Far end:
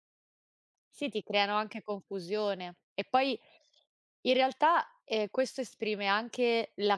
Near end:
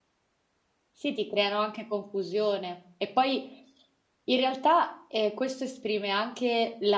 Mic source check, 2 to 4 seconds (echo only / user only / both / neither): echo only